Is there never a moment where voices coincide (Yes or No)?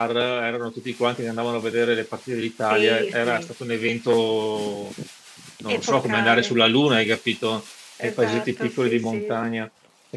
No